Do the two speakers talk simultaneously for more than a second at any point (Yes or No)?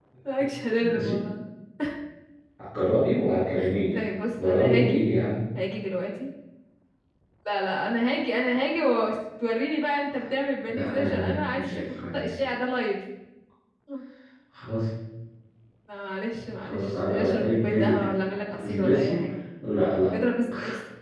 Yes